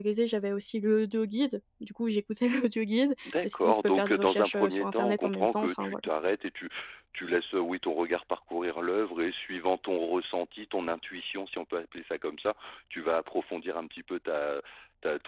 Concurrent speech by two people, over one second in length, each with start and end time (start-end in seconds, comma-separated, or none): 3.2-6.0